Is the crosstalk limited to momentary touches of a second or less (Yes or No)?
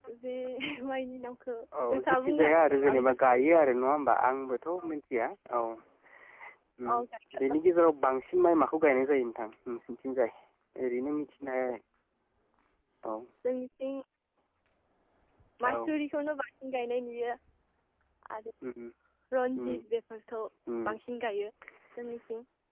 No